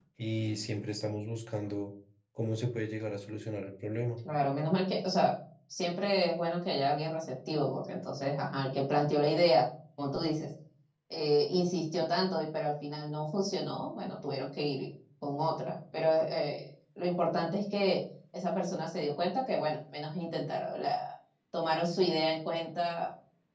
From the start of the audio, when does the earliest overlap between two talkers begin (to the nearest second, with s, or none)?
none